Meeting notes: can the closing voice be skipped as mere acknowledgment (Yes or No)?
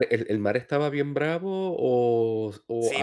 No